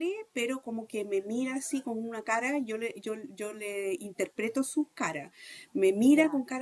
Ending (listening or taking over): listening